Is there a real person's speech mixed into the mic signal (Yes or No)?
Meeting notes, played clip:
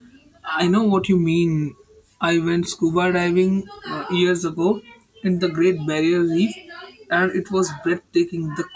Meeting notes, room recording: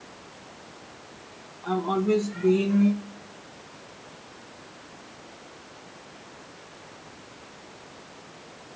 Yes